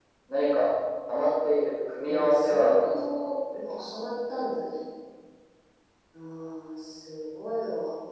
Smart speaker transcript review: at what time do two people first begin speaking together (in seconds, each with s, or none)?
2.1 s